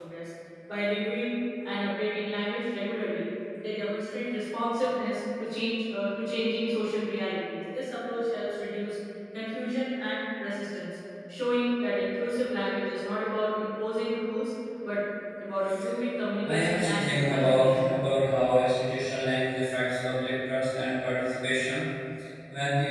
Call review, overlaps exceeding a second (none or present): present